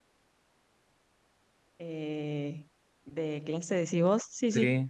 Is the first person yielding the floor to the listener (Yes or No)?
Yes